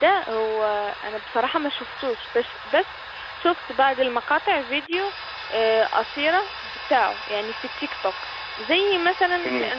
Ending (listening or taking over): listening